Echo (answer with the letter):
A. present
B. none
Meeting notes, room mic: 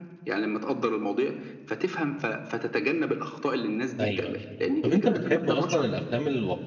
A